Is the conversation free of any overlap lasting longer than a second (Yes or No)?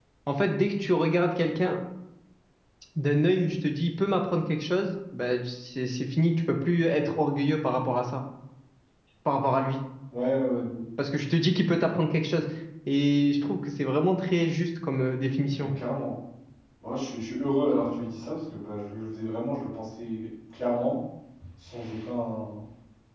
Yes